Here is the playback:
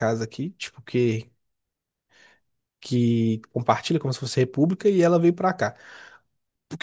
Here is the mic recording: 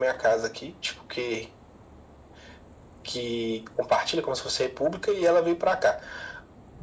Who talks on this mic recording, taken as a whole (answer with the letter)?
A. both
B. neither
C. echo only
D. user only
C